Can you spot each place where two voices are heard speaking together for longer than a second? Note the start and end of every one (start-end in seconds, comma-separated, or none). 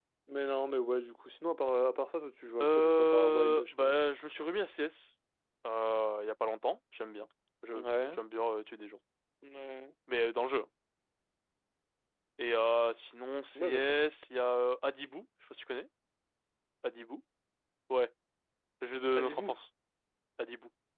2.6-4.0